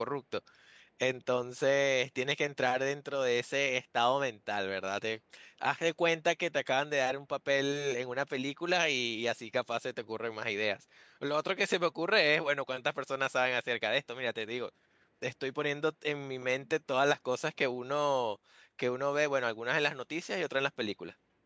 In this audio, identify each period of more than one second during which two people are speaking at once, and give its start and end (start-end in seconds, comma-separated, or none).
none